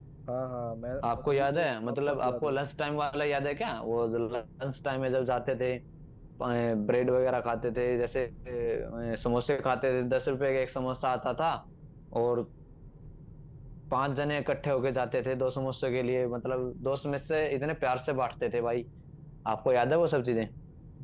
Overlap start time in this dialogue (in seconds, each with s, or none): 1.3 s